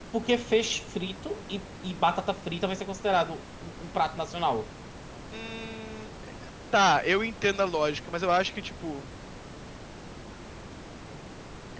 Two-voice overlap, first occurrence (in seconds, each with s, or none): none